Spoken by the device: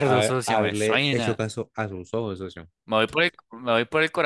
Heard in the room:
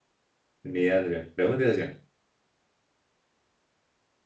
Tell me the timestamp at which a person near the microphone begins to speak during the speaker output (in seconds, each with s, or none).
0.6 s